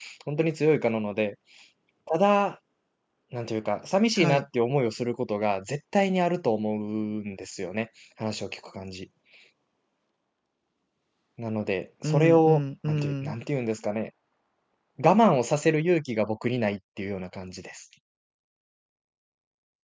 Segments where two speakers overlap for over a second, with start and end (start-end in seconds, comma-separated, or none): 12.0-13.3